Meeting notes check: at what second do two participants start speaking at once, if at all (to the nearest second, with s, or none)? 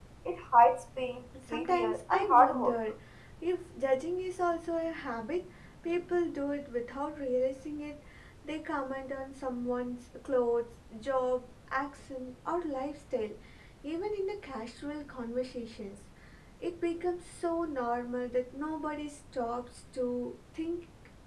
1 s